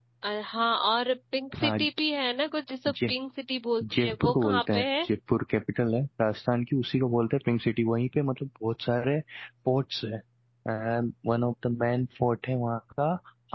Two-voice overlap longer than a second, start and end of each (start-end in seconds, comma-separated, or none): 3.8-5.1